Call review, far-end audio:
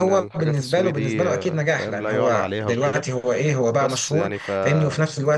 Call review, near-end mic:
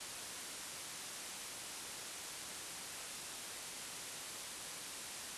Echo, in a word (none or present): none